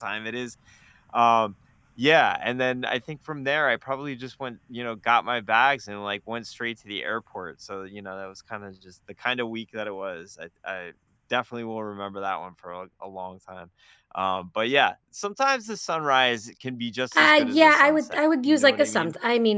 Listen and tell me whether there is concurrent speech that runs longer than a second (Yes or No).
Yes